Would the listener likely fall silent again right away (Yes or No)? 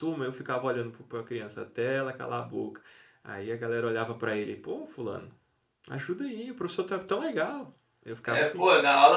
No